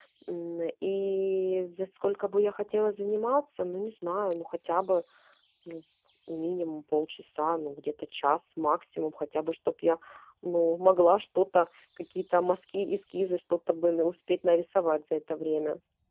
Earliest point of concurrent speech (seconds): none

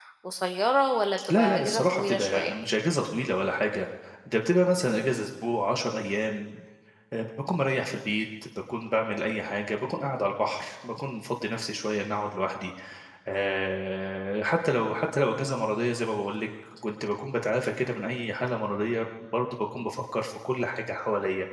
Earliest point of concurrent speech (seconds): 1.3 s

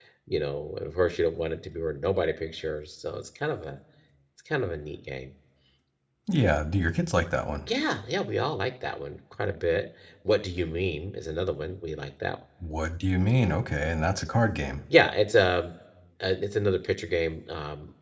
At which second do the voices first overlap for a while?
none

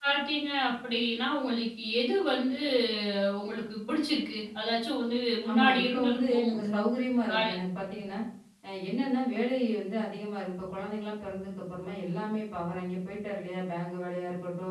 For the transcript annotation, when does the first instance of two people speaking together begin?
5.5 s

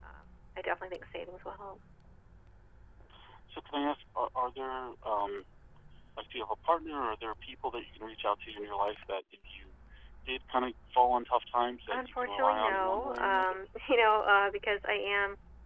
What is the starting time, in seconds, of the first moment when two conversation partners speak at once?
11.9 s

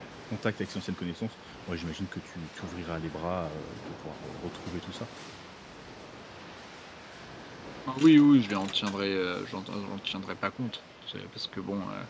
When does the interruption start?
none

